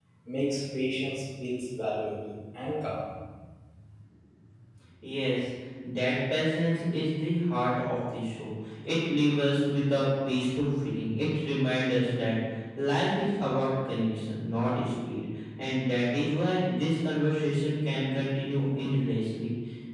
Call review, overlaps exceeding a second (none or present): none